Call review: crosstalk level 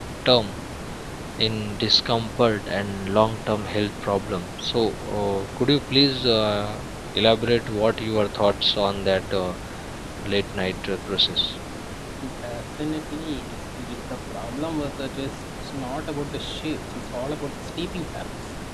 none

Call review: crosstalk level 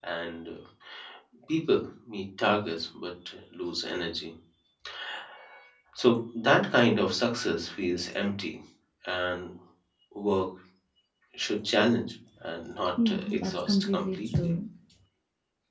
present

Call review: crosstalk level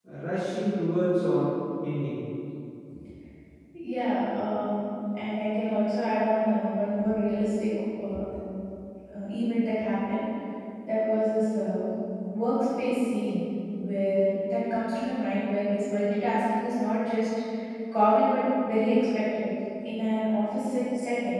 none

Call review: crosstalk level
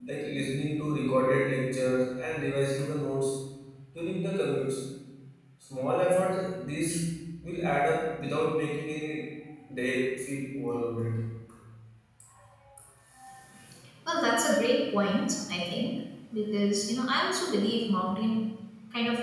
none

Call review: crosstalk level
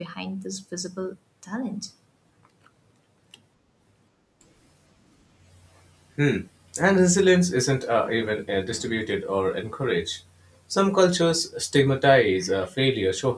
none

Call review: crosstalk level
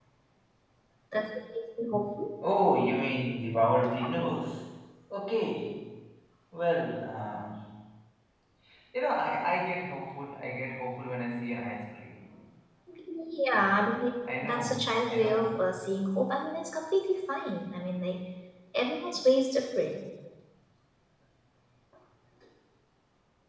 present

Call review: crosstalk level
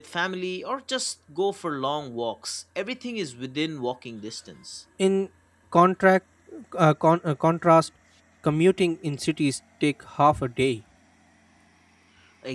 none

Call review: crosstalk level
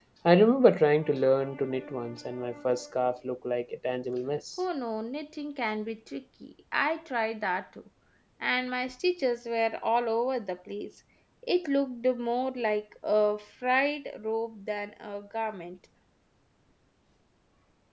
none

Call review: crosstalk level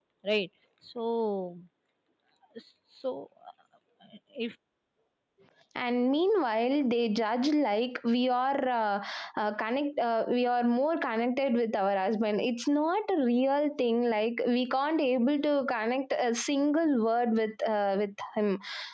none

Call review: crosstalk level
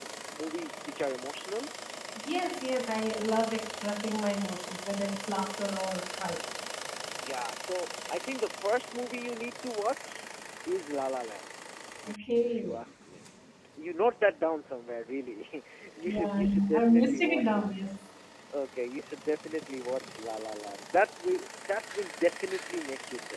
present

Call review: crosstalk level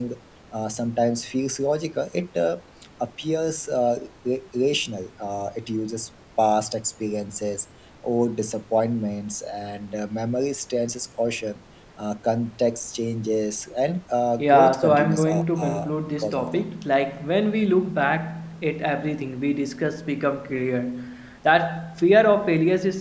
present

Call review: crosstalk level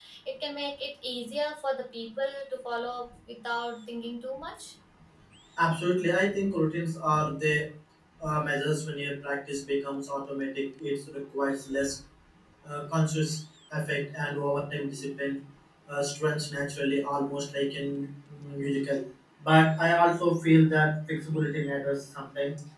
none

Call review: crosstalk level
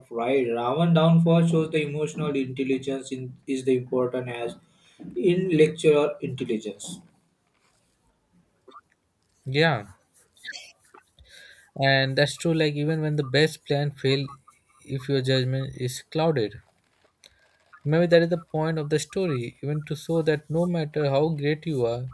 none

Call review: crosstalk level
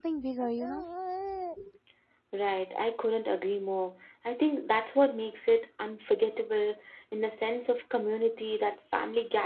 none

